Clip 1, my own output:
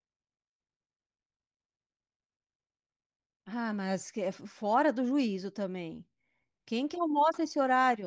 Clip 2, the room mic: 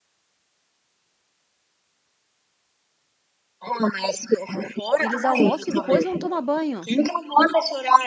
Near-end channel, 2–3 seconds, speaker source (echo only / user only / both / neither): neither